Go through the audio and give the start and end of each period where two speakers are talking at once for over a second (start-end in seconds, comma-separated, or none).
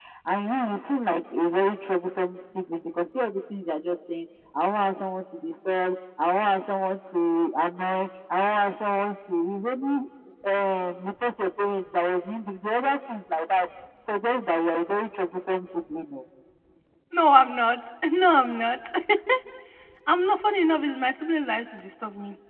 none